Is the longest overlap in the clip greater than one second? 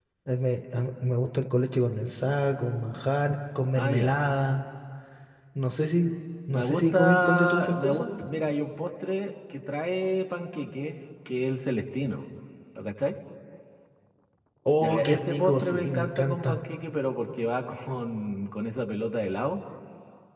Yes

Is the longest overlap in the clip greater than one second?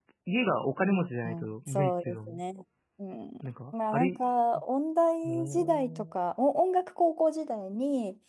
Yes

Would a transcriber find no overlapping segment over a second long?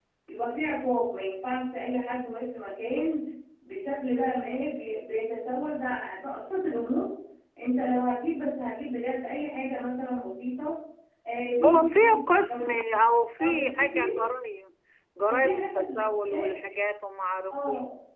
No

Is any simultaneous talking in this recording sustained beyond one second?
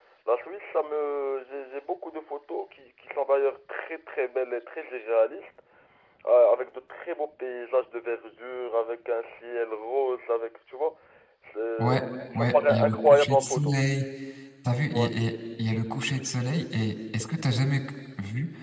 Yes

